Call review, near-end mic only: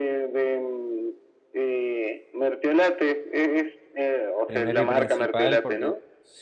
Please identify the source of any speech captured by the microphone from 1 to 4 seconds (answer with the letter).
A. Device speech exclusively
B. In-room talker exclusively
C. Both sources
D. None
A